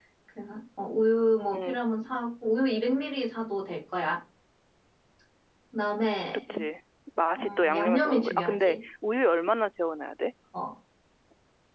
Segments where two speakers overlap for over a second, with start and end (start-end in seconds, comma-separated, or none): 7.4-8.8